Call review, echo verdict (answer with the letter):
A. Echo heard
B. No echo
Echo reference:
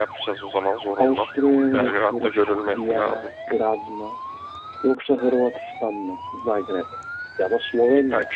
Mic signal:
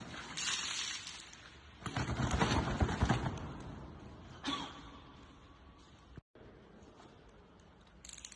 B